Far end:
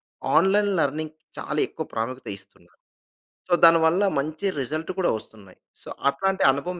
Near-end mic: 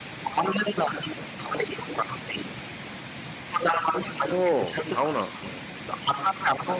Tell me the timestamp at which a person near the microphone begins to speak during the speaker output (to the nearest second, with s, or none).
4 s